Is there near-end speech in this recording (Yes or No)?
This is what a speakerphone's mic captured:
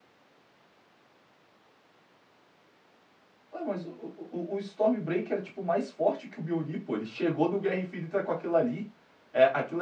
Yes